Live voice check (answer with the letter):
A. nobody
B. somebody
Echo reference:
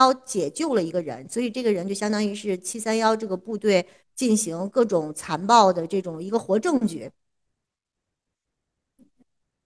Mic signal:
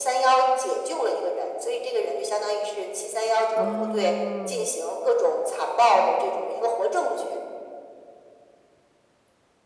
B